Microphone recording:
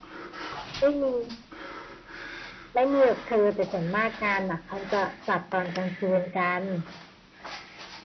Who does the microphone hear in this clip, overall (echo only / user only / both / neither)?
echo only